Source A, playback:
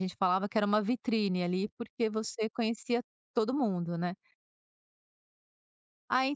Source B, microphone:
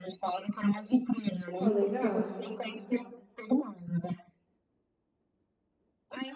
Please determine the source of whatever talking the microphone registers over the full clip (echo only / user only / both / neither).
both